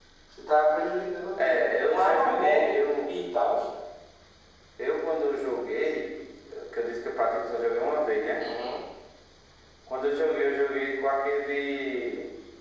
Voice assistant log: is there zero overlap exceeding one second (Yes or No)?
No